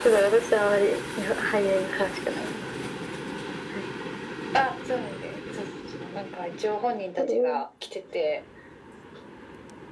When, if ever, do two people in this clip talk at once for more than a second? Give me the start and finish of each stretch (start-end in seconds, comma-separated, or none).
none